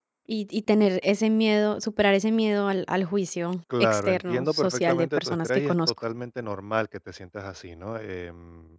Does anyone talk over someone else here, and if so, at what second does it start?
4 s

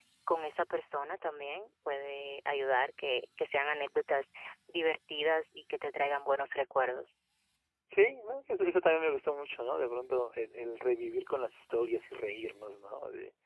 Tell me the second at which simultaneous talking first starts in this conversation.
none

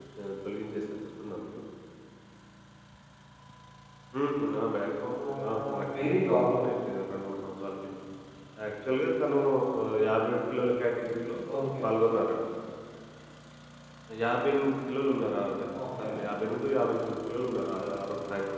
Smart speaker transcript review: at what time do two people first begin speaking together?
5 s

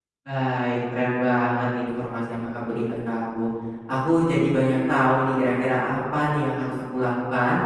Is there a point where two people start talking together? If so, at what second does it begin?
none

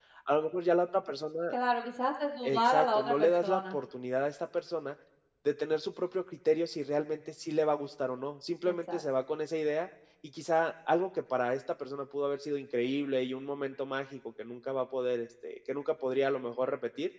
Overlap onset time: 2 s

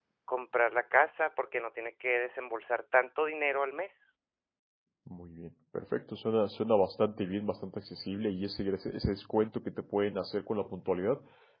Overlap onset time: none

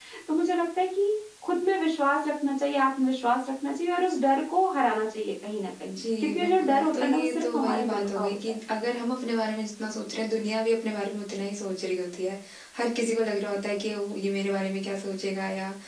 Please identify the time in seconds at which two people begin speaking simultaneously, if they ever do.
6 s

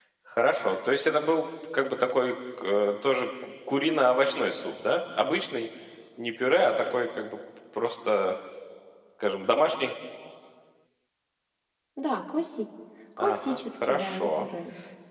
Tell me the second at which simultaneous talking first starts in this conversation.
13 s

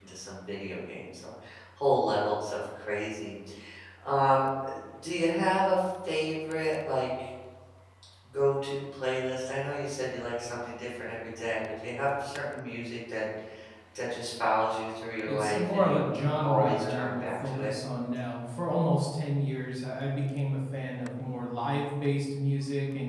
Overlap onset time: 15 s

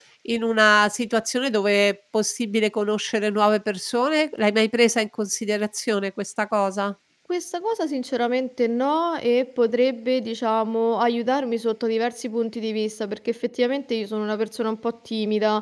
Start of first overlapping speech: none

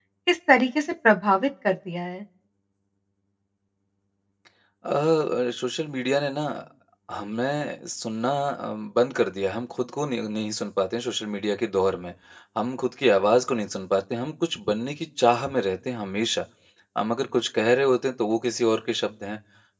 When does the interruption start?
none

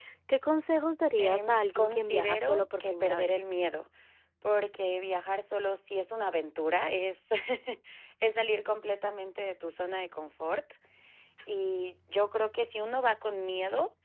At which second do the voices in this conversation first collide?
1 s

